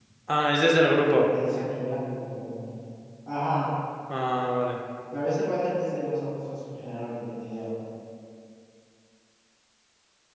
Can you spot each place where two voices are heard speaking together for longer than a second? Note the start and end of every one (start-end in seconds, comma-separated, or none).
none